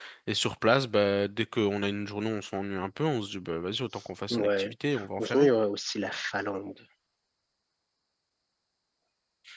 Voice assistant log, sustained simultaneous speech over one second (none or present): none